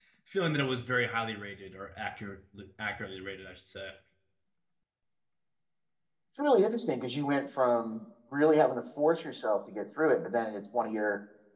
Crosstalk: none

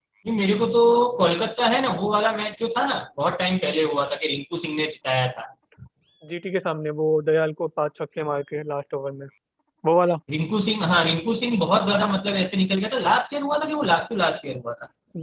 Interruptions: none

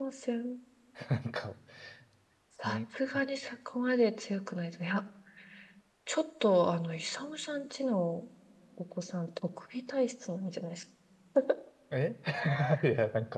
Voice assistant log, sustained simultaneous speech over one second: none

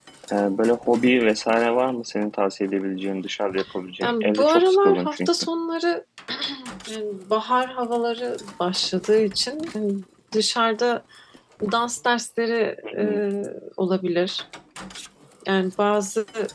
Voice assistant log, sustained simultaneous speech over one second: present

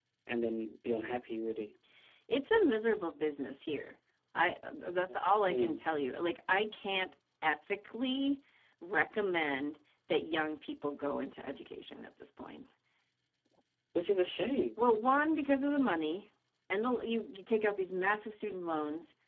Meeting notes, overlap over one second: none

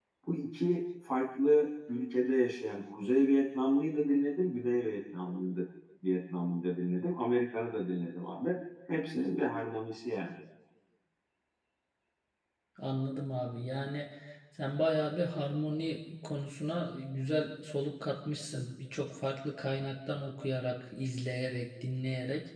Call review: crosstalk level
none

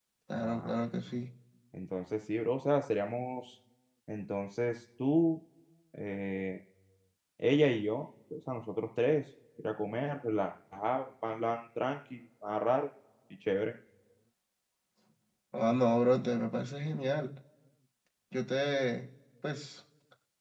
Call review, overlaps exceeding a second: none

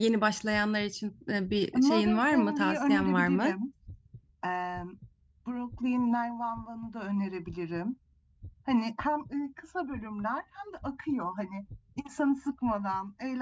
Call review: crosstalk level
present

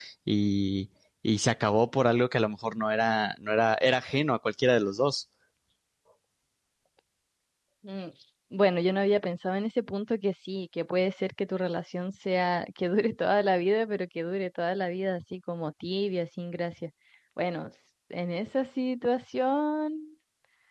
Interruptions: none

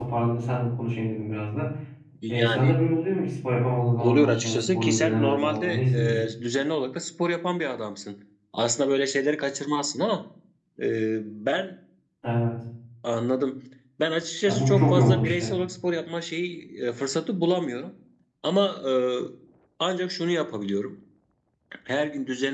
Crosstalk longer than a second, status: present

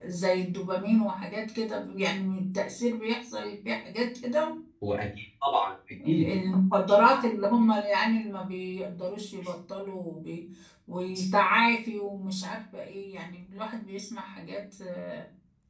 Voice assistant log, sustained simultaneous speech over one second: none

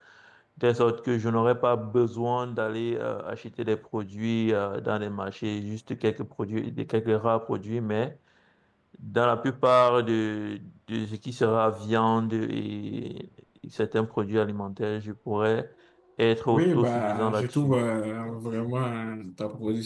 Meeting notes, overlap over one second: present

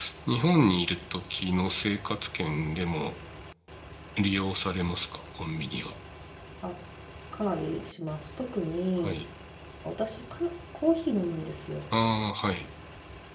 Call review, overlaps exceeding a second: none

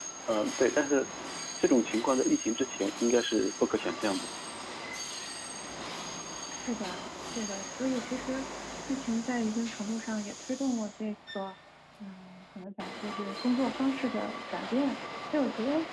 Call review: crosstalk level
none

